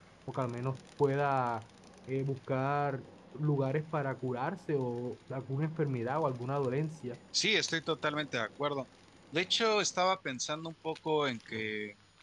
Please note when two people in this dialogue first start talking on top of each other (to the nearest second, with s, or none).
none